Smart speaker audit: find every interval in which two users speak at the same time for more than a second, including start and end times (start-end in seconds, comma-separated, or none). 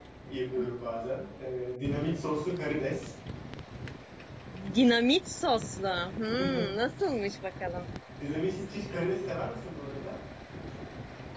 none